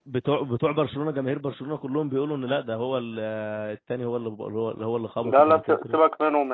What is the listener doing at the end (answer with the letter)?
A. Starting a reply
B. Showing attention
A